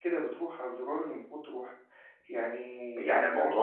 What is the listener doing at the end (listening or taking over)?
taking over